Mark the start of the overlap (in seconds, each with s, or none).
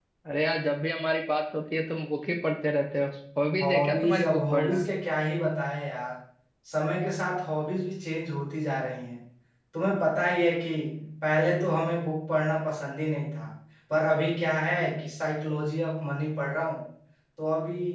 3.6 s